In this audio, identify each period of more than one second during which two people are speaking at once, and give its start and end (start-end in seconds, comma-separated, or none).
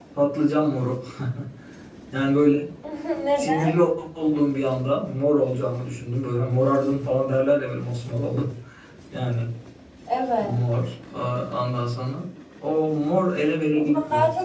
none